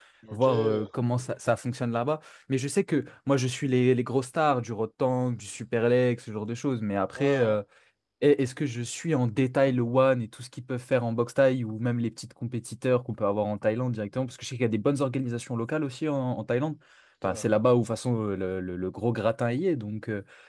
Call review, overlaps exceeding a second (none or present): none